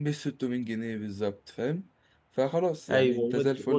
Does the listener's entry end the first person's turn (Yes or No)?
Yes